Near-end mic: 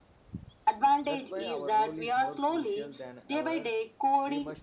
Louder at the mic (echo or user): echo